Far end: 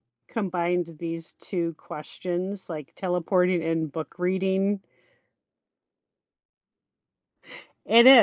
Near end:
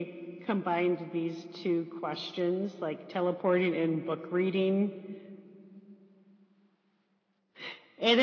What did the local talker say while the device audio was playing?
none

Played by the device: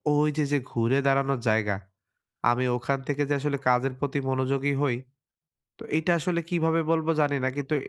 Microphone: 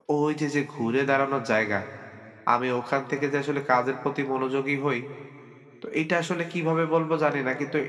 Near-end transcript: none

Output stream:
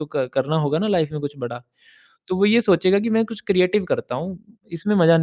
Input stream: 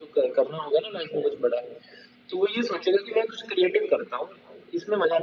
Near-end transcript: none

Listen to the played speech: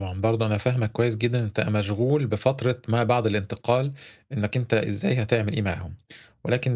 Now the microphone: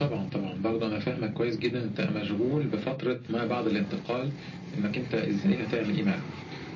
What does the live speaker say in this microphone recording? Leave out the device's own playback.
none

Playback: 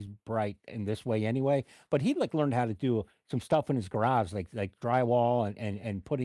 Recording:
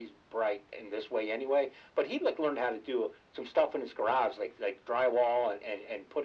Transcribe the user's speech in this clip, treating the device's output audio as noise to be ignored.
none

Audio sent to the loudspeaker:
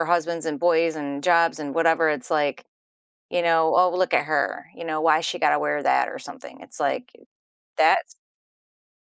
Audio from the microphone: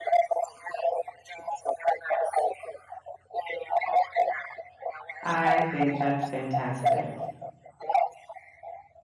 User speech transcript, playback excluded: I think that's fantastic.

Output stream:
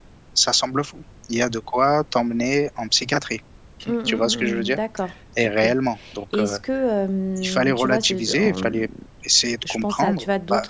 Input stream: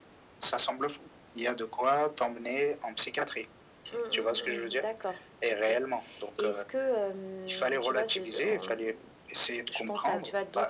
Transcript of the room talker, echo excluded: none

